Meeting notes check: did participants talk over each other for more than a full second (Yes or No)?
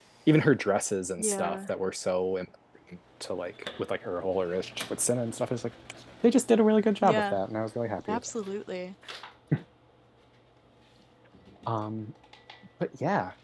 No